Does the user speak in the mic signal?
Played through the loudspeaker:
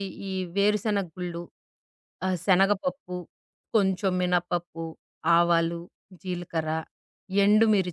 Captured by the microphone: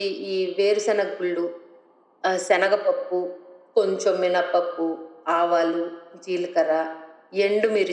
No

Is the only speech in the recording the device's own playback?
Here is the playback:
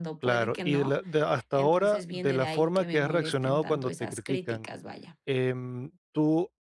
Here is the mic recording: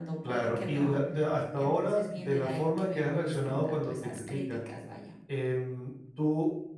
Yes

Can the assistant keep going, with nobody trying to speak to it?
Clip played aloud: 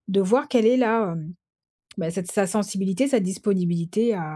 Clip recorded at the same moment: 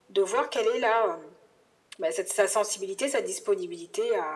Yes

